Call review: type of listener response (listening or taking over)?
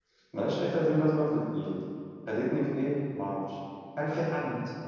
listening